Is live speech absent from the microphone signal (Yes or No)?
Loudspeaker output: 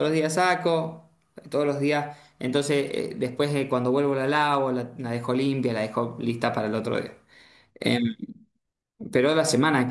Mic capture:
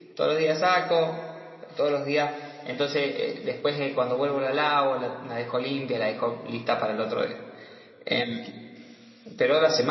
Yes